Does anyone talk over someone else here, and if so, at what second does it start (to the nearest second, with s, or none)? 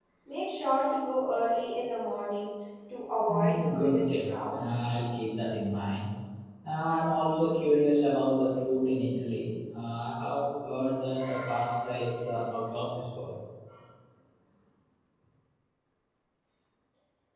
3 s